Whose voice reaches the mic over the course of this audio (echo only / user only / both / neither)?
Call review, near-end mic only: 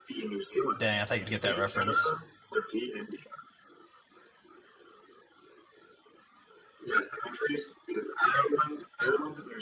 both